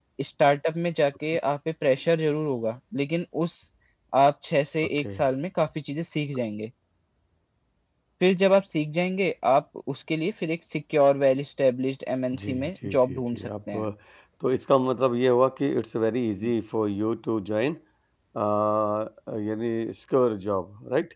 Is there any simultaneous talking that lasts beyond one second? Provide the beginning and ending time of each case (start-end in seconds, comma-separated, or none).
12.4-13.9